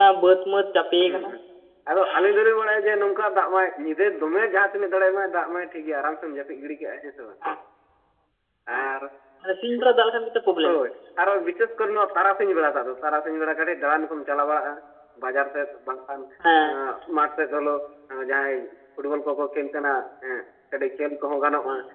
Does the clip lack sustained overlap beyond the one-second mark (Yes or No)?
Yes